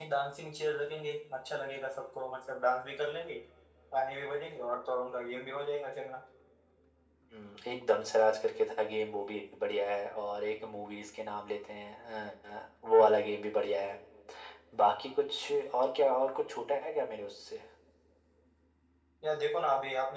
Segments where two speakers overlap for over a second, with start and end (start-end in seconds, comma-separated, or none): none